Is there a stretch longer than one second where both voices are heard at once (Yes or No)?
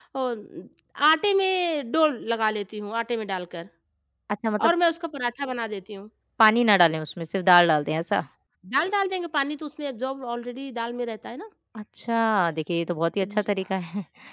No